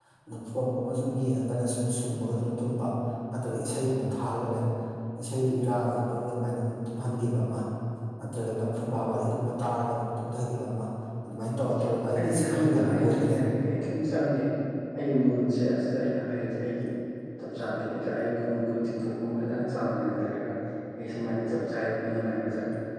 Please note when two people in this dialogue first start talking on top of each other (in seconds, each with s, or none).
12.2 s